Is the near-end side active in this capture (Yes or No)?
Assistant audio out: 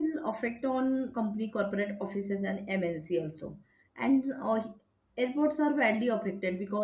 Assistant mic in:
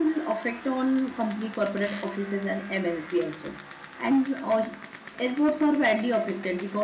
No